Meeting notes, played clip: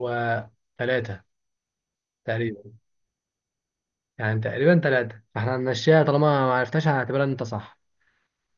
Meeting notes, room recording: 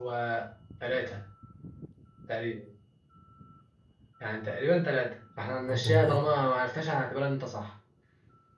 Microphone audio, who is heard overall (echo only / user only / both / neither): both